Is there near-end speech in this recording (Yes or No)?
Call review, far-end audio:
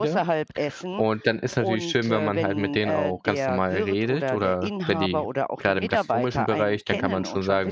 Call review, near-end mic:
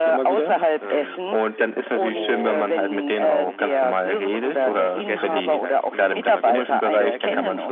Yes